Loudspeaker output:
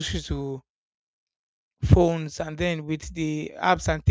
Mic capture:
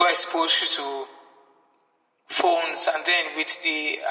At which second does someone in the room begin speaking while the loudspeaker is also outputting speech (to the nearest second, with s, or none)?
none